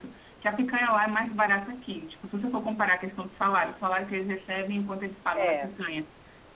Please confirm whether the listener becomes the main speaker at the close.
No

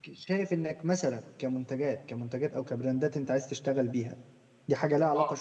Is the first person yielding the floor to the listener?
No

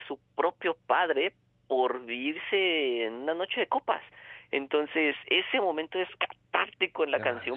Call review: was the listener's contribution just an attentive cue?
Yes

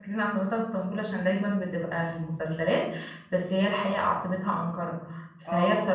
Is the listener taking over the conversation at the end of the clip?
No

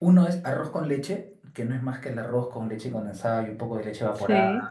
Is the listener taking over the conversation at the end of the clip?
Yes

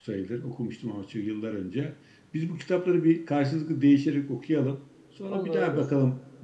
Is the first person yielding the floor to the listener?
No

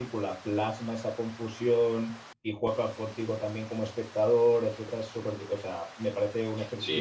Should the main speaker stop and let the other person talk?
Yes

